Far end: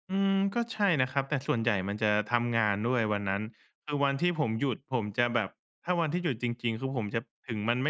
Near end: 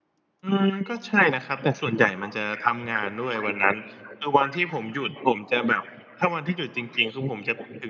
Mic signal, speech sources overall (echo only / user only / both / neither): echo only